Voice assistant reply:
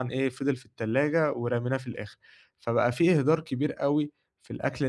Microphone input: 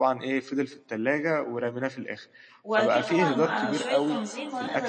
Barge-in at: 3 s

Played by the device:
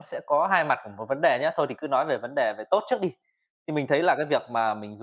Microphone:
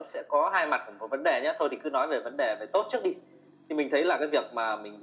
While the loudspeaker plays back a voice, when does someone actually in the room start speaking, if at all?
none

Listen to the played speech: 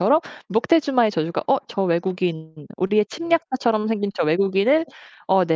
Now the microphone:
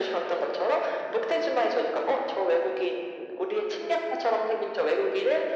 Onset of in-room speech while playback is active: none

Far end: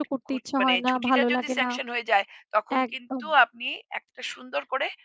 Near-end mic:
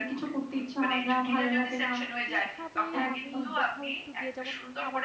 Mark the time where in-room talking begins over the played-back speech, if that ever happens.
2 s

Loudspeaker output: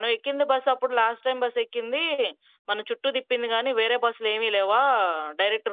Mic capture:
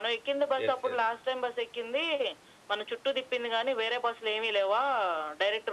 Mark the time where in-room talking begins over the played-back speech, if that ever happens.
1 s

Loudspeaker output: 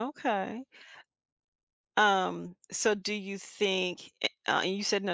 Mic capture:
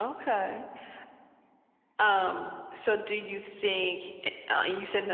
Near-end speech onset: none

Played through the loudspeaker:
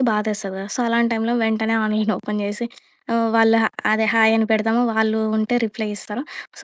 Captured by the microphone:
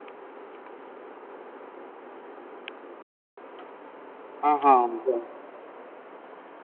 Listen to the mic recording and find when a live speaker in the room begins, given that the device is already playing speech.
5 s

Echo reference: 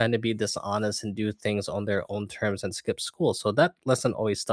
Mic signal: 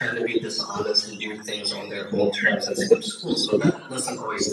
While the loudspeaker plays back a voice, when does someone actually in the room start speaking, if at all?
none

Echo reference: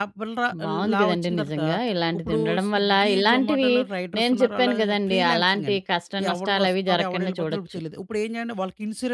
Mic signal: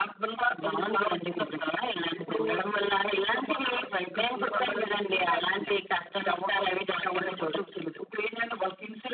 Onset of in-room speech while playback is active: none

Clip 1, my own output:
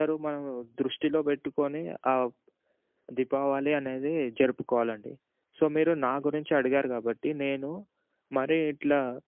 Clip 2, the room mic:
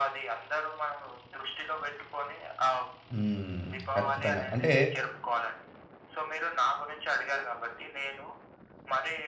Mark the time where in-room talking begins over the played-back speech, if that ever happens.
3 s

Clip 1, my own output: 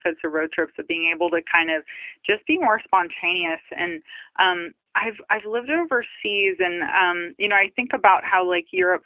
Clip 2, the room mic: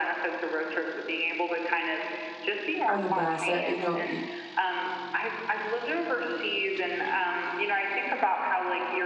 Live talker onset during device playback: 3 s

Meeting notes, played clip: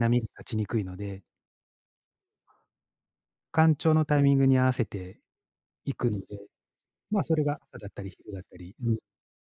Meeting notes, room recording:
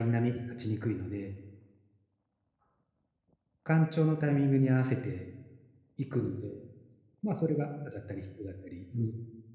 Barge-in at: none

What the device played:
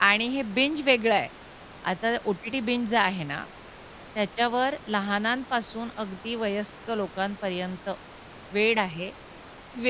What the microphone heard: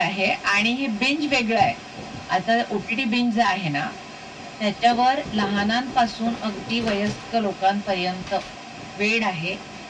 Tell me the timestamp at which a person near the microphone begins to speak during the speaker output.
none

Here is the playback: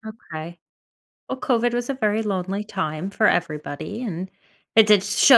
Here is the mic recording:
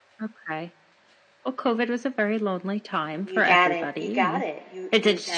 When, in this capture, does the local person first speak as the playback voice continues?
3 s

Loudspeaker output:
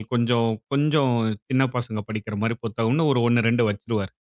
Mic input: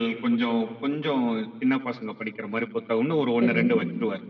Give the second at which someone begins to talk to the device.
3 s

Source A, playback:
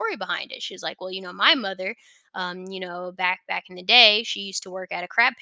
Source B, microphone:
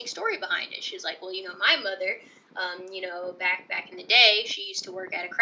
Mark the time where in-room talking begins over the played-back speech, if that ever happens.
none

